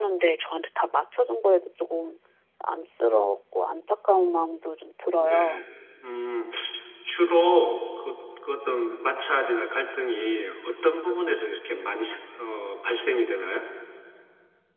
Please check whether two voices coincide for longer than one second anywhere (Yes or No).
No